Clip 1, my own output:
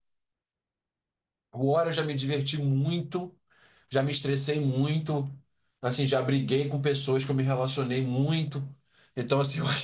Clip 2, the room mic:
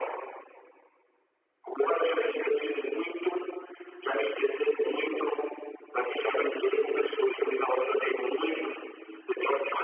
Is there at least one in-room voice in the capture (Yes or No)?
No